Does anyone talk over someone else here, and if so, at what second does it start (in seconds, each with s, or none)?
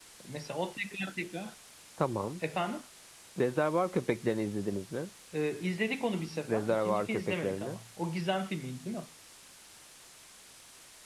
6.5 s